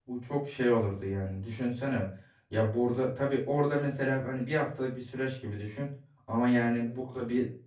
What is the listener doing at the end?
listening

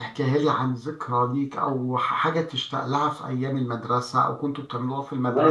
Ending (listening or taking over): taking over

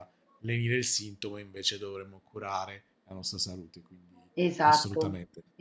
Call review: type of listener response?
taking over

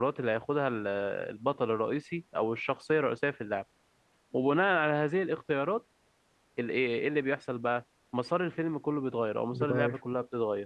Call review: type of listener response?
listening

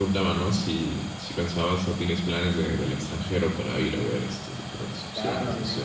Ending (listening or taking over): taking over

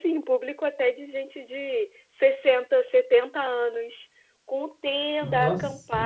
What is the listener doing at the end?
listening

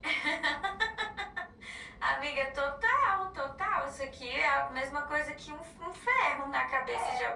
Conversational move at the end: taking over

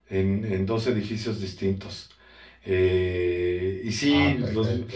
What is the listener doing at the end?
listening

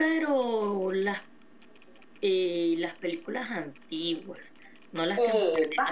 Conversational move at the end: taking over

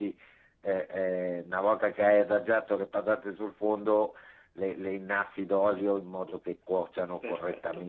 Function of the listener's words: listening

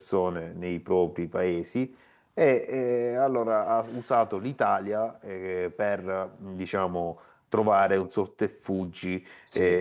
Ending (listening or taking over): listening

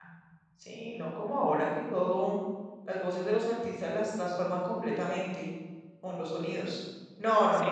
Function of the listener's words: taking over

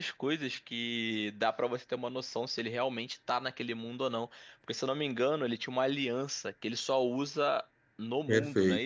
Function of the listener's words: taking over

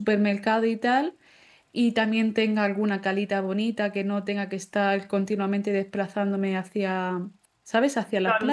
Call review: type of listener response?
taking over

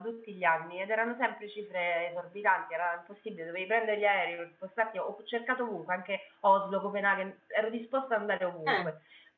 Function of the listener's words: listening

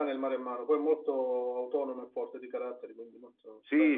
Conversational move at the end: taking over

